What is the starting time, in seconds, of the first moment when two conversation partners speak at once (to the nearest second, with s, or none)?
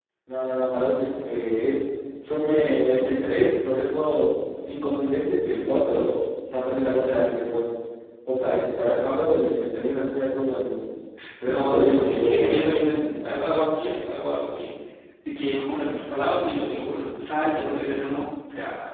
11 s